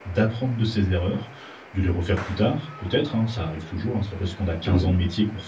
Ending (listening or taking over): listening